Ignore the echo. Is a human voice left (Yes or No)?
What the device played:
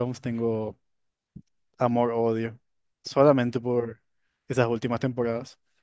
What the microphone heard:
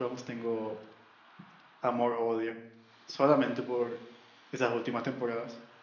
No